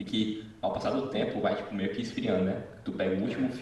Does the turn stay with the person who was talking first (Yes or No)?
Yes